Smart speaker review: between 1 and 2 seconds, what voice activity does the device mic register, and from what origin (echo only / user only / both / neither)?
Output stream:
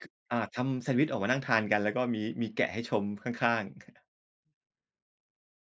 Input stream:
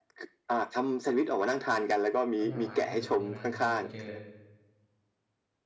echo only